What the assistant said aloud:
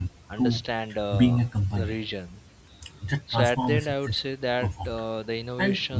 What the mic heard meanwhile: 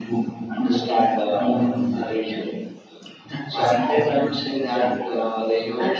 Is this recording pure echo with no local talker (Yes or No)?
Yes